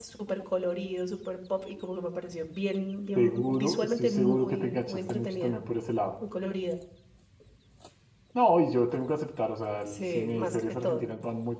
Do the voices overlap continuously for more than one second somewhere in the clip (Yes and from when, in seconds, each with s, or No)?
Yes, from 3.1 s